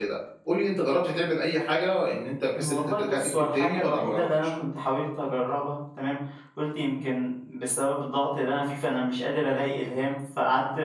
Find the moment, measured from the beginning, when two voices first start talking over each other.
3 s

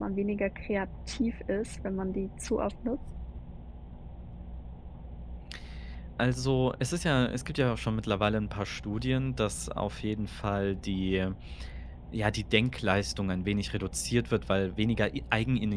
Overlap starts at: none

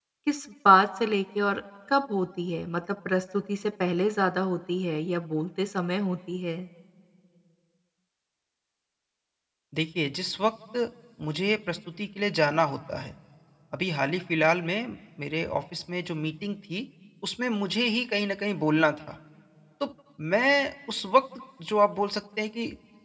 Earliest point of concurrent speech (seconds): none

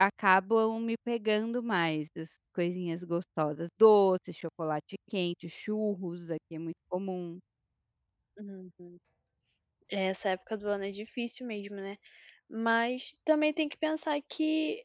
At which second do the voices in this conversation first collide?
none

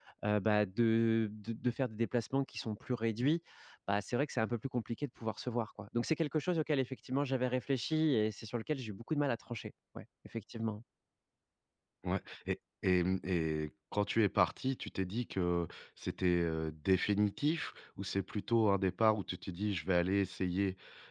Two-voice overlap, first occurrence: none

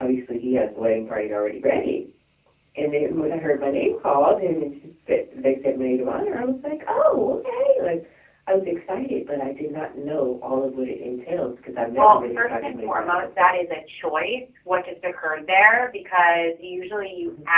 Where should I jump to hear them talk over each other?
12 s

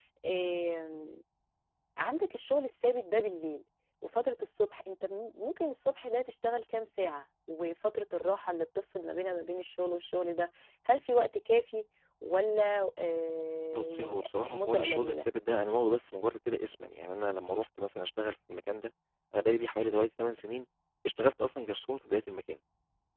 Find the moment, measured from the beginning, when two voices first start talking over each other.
14 s

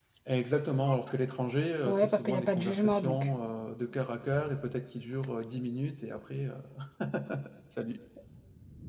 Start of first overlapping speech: 2 s

